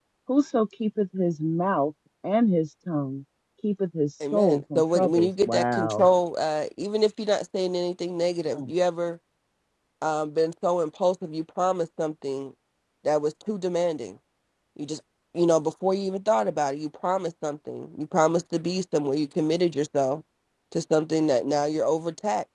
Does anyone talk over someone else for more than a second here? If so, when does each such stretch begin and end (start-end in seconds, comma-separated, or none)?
4.3-6.1